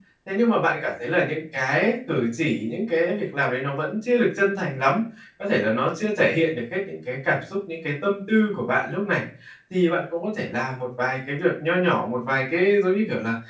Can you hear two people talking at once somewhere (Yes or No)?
No